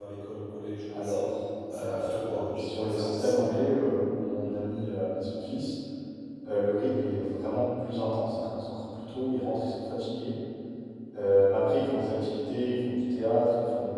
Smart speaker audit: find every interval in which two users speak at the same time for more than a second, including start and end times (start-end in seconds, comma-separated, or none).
1.7-3.7